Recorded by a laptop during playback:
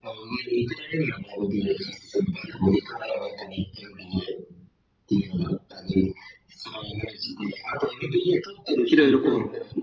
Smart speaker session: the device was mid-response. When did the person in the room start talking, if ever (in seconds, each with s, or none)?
8.9 s